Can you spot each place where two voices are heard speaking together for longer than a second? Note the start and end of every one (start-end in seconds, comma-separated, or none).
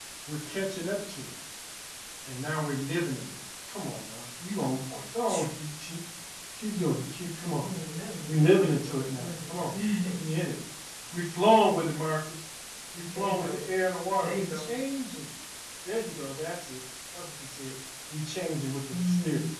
8.3-9.5